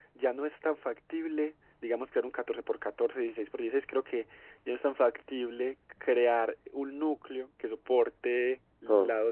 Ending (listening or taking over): listening